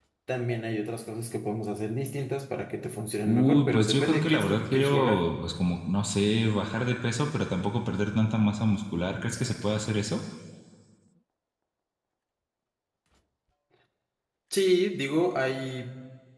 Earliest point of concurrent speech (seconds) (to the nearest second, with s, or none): 3 s